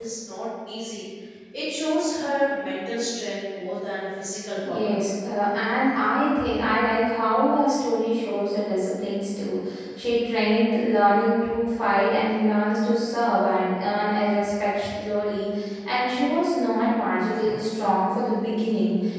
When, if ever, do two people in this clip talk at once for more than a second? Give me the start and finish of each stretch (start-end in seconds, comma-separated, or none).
none